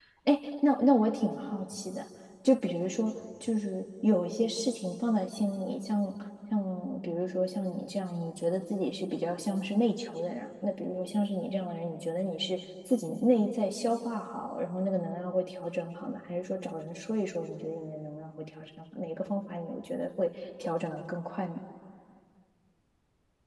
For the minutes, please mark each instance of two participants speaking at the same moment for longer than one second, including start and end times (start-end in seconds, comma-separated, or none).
none